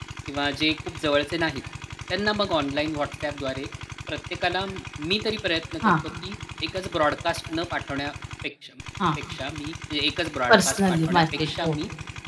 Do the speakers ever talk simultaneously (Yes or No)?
Yes